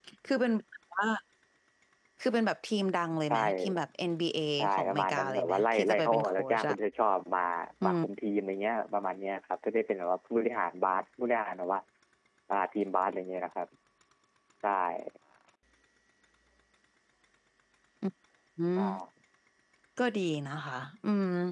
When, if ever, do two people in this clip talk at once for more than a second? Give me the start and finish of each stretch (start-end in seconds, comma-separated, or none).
4.6-6.8